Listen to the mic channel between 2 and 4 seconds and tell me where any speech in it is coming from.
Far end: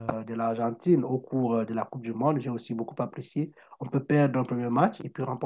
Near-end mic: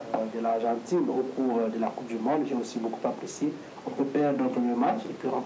echo only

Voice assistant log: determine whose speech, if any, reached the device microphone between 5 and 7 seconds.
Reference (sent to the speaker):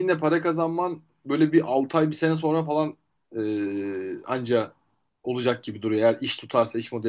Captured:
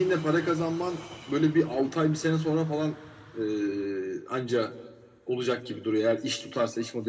echo only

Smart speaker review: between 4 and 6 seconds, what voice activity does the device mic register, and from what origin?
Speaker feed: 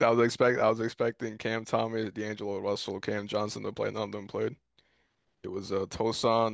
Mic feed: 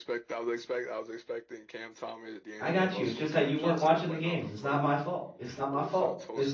both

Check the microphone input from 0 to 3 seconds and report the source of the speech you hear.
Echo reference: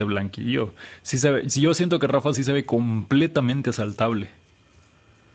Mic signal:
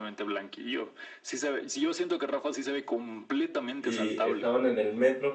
echo only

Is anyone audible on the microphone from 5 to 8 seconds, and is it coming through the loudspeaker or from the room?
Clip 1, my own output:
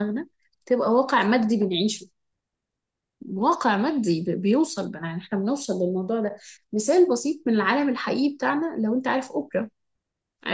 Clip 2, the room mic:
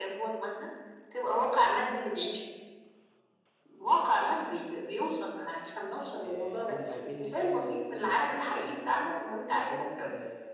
both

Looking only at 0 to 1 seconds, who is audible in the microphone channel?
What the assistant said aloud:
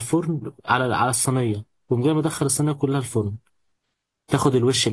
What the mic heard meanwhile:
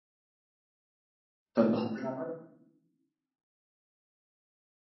neither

